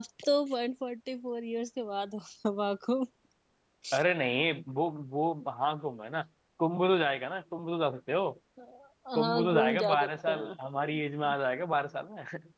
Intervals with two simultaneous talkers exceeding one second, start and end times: 9.2-10.5

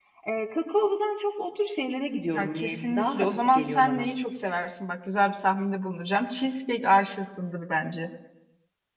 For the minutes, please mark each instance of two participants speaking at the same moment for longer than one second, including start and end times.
2.3-4.1

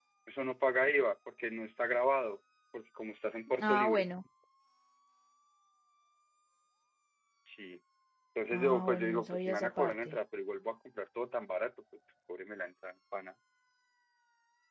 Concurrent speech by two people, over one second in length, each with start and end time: 8.5-10.2

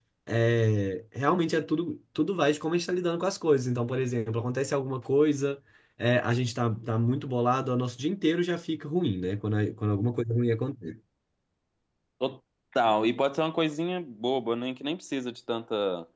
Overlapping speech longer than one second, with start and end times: none

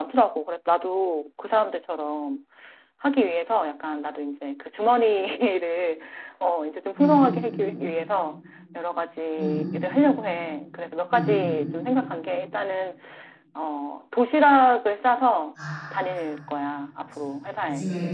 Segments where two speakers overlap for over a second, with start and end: none

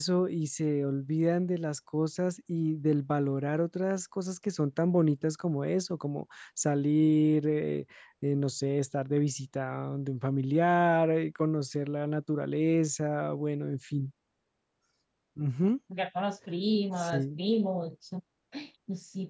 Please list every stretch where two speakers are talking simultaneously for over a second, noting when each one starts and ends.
none

